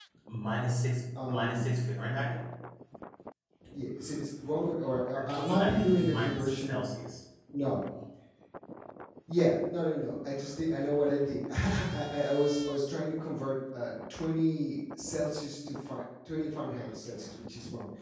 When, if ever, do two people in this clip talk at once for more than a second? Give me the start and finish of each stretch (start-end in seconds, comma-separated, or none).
5.1-6.8